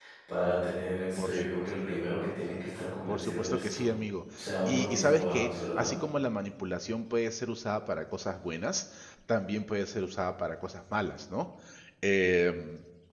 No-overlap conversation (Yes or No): No